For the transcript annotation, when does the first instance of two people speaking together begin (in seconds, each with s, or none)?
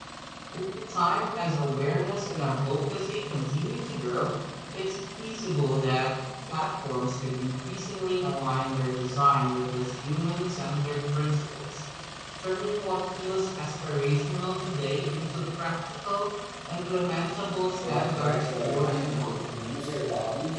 17.8 s